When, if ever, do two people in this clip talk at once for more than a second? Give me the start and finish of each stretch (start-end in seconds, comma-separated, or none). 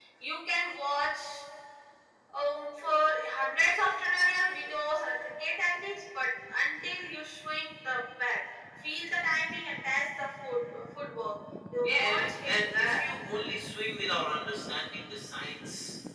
11.8-13.1